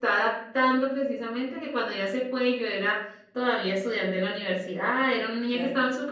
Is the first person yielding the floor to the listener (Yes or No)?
No